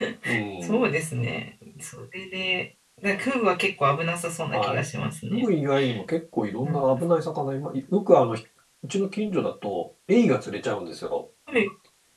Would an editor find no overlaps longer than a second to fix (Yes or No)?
Yes